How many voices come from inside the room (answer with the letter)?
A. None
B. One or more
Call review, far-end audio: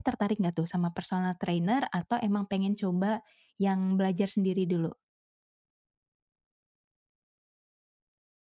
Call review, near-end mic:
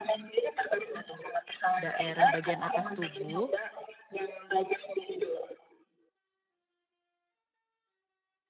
B